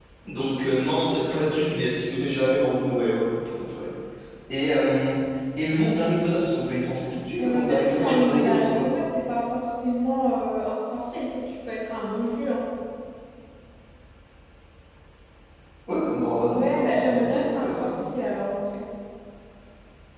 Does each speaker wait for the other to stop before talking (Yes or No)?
No